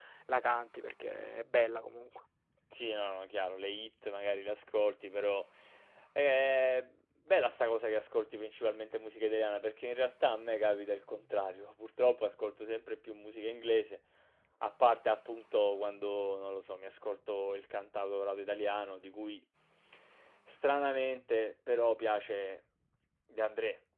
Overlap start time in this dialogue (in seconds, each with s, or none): none